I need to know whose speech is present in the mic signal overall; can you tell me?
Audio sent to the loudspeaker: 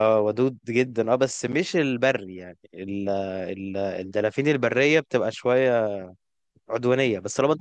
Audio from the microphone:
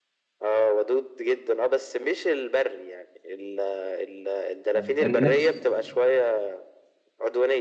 both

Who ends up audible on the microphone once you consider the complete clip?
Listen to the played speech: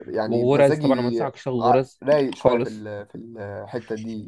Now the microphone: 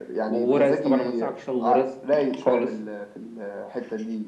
echo only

